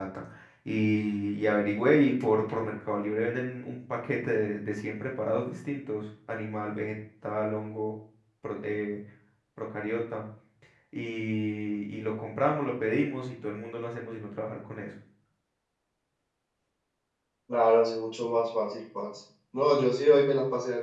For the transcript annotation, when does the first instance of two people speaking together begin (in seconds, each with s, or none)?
none